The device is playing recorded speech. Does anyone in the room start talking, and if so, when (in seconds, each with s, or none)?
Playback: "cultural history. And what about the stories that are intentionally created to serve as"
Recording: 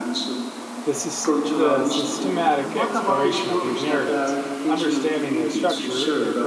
0.8 s